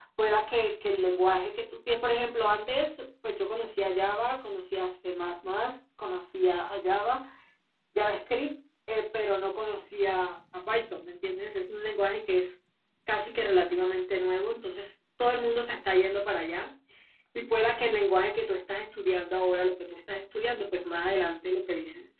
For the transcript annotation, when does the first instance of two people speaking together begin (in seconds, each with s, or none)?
none